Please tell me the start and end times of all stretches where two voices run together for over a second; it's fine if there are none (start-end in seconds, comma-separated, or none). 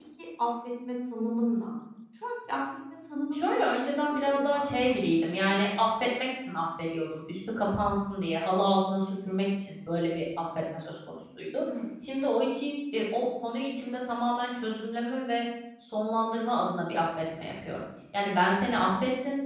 3.3-5.0